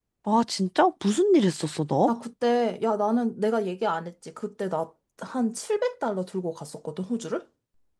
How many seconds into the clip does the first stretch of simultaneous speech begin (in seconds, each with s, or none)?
none